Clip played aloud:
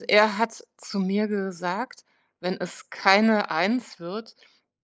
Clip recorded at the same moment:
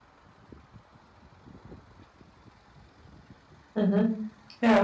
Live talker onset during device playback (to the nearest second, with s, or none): 4 s